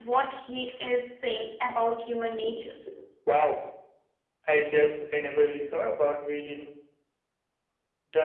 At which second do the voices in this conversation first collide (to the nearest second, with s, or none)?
none